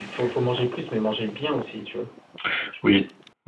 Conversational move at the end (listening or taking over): taking over